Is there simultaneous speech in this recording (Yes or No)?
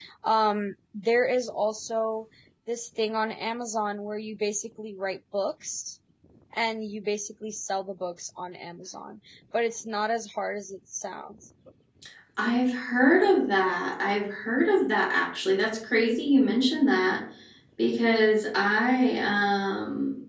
No